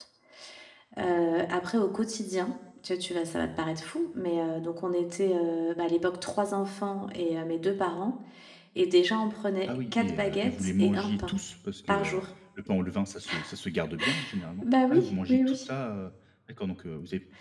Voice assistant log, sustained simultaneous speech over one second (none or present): present